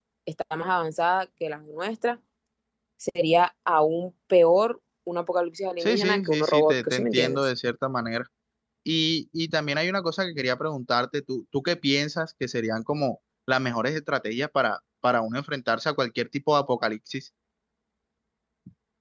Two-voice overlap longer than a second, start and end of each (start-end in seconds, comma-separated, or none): 5.8-7.4